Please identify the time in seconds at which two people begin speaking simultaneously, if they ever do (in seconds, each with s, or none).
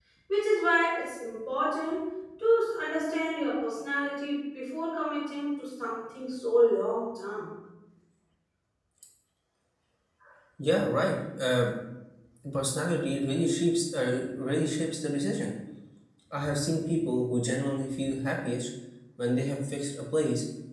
none